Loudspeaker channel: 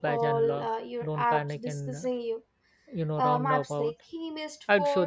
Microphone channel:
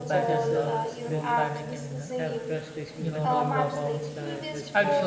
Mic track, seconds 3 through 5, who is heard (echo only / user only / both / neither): both